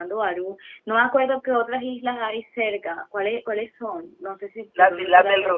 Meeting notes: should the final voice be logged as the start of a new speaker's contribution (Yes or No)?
Yes